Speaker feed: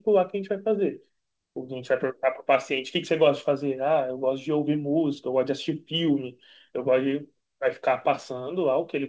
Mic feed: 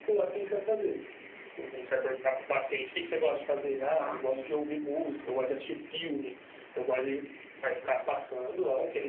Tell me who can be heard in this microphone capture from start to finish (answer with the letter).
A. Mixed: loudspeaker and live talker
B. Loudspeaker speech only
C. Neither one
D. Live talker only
A